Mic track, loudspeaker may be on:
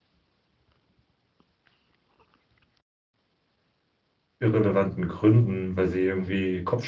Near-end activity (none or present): present